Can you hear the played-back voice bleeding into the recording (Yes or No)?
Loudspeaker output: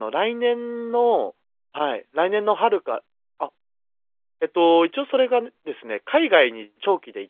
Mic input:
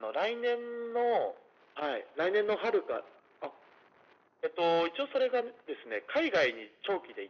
Yes